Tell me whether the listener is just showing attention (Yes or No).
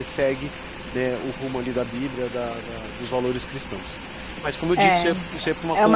No